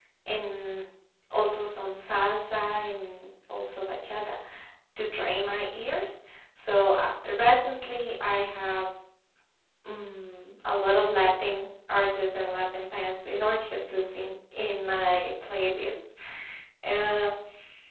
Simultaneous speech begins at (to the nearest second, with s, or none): none